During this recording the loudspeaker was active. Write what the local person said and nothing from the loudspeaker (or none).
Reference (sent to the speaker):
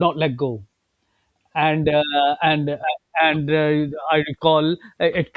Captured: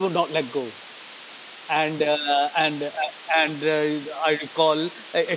none